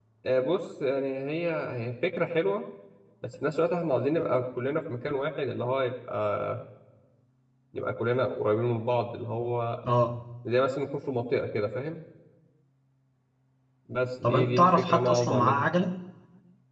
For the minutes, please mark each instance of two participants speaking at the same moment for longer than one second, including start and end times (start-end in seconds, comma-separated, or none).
14.2-15.7